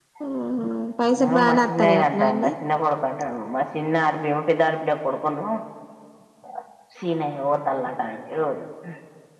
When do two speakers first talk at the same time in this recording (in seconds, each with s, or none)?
1.3 s